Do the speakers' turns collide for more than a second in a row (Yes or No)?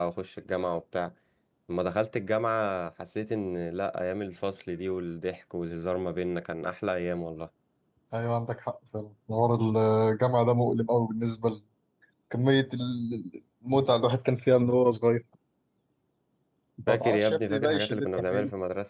Yes